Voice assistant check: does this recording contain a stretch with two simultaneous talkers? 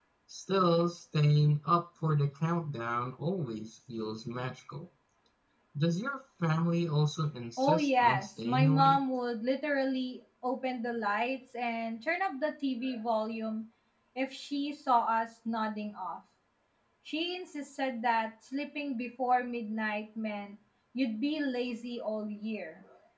Yes, from 7.6 s

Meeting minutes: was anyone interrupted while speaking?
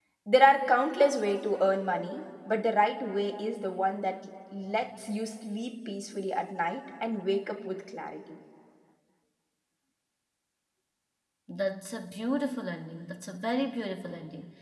No

